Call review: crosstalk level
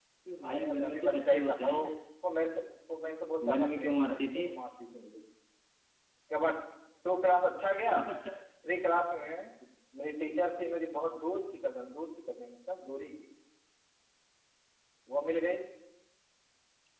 present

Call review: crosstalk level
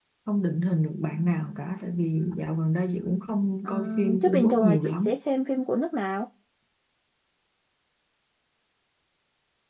present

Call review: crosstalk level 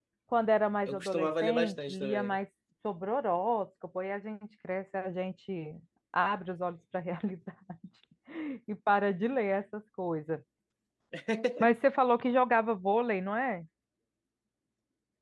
present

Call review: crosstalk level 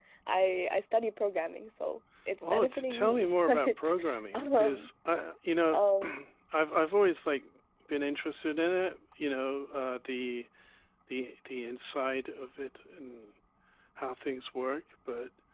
present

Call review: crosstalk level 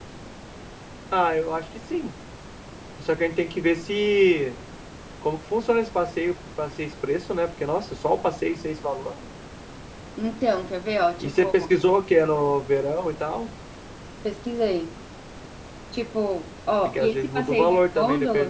present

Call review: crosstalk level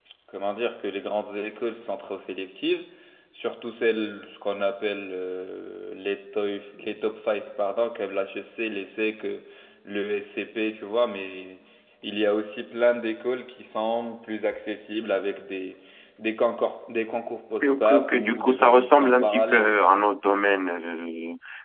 present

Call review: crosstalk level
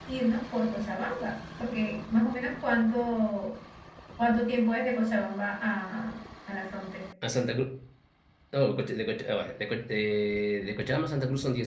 none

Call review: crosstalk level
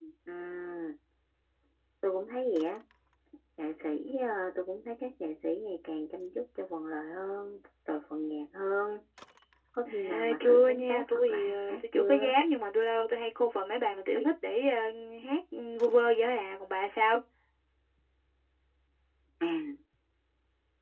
present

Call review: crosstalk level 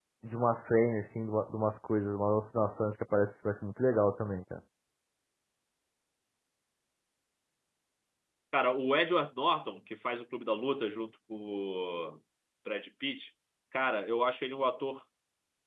none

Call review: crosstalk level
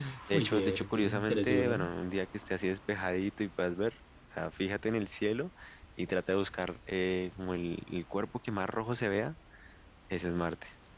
present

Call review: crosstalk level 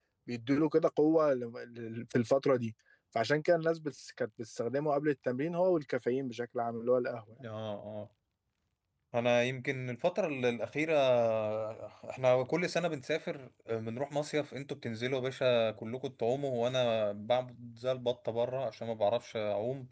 none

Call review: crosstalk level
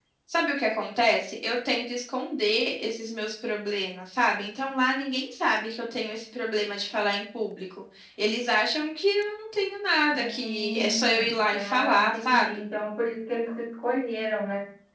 present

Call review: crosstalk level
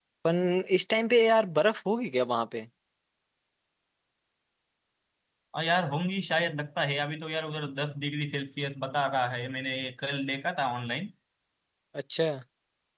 none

